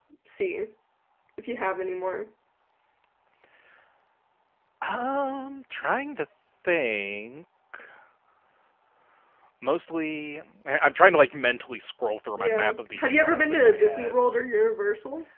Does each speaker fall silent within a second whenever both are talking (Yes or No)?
No